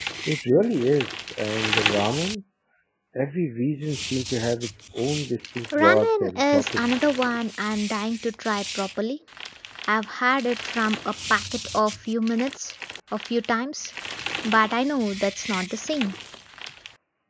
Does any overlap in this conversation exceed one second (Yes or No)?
Yes